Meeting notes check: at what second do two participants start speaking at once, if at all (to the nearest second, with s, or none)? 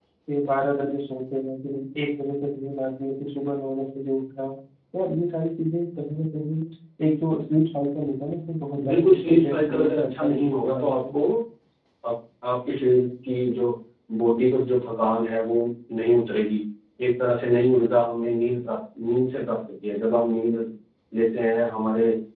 9 s